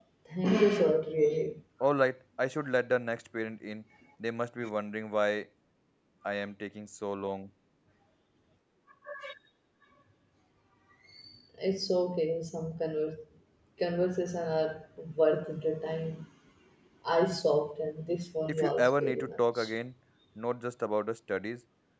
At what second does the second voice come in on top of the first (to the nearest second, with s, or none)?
18 s